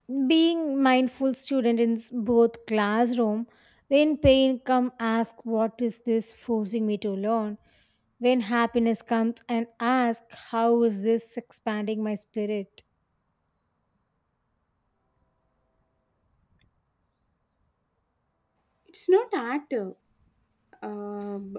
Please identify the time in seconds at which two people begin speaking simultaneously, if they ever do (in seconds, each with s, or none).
none